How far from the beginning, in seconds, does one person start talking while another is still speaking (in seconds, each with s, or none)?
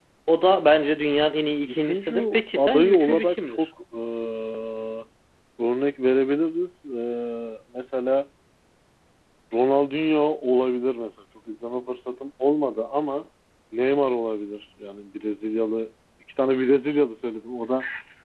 1.7 s